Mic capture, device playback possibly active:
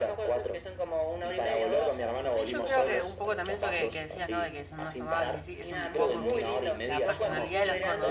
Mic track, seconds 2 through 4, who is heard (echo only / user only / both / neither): both